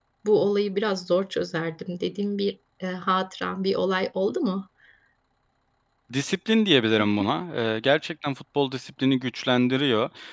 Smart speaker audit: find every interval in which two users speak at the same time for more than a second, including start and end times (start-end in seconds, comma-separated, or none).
none